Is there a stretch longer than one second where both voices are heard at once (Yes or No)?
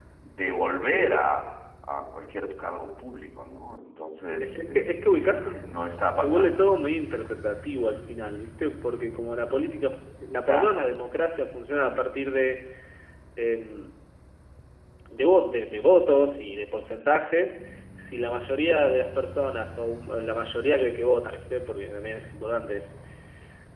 Yes